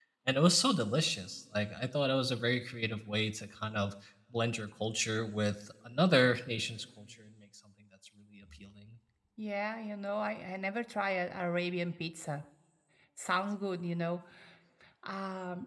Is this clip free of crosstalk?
Yes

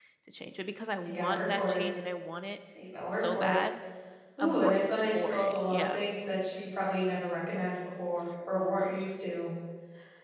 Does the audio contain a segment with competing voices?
Yes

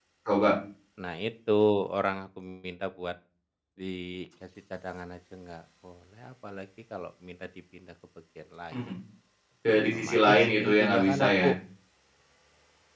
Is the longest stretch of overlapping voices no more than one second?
No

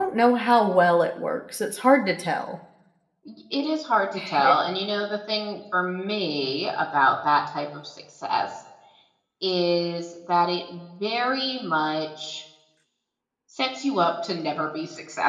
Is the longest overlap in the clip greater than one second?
No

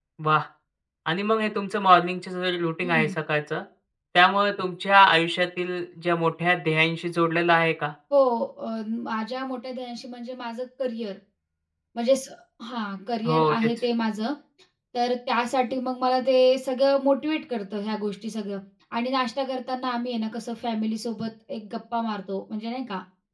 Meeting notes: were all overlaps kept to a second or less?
Yes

